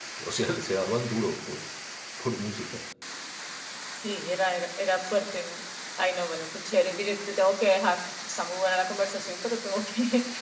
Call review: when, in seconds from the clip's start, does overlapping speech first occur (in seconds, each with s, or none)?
none